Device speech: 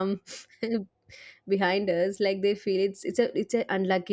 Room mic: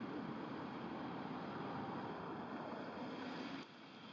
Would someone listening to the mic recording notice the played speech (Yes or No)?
No